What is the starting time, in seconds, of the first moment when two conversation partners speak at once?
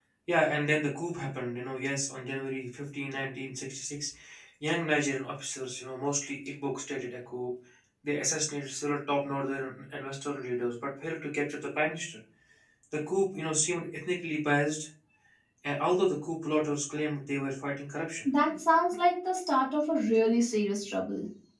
none

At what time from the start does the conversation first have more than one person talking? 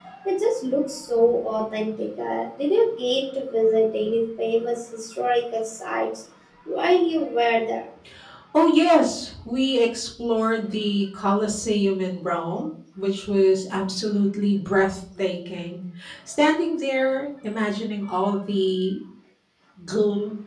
none

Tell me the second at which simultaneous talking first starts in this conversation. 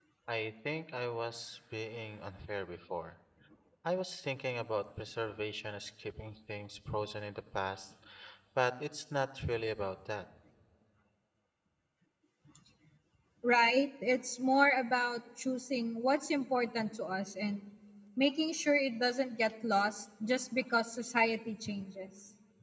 none

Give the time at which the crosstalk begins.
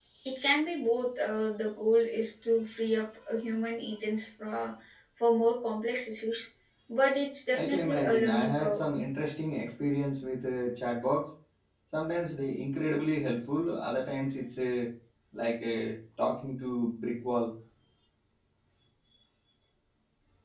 8 s

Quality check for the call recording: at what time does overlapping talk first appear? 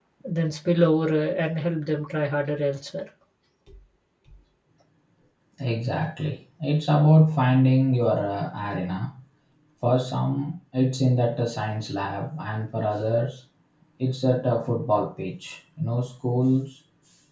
none

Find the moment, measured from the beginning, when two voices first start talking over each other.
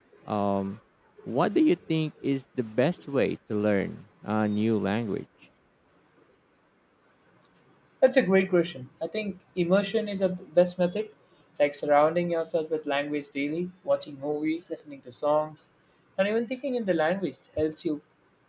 none

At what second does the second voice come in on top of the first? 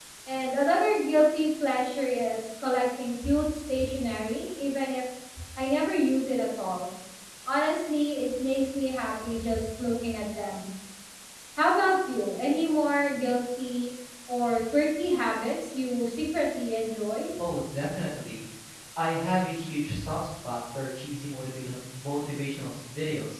none

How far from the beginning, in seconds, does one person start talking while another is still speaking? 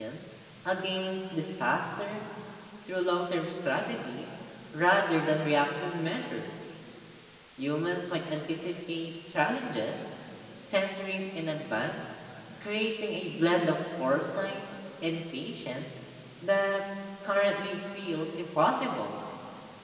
none

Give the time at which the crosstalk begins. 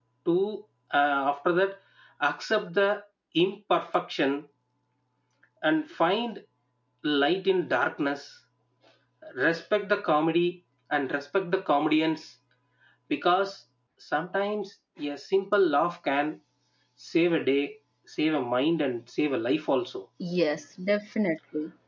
none

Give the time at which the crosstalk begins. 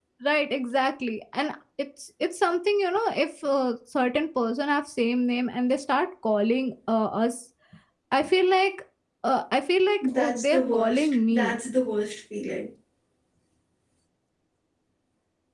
10 s

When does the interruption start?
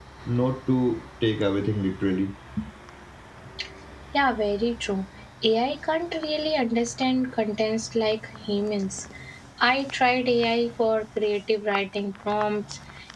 none

